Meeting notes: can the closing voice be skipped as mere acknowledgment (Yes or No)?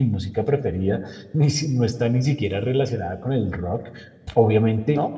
Yes